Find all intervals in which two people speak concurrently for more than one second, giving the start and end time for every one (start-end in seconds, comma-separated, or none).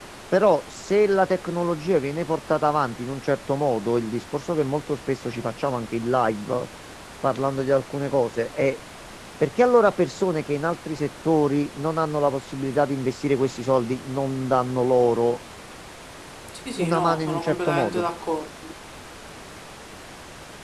16.8-18.1